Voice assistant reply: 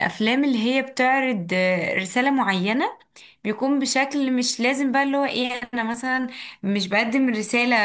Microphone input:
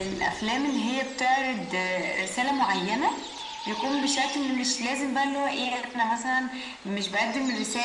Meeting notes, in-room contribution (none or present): none